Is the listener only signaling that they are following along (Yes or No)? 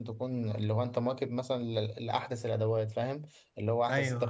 Yes